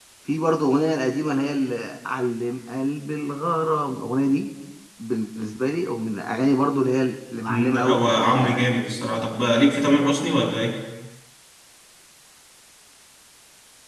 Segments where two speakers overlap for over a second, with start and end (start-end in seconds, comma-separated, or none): 7.5-8.7